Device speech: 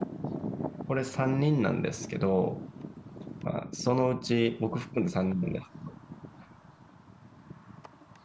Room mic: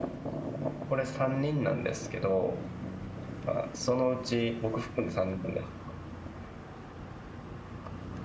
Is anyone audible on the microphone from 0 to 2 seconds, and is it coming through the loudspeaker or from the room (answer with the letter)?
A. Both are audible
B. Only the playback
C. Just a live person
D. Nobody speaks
B